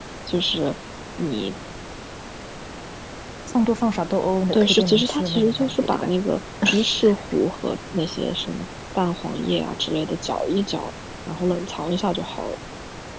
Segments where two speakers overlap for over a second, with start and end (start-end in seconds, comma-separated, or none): 4.5-6.1